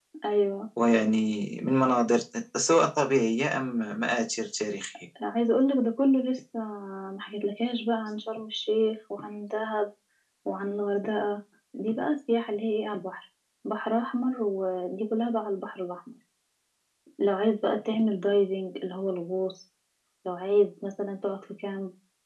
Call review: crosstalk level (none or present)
none